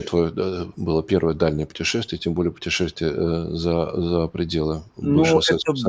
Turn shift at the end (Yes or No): Yes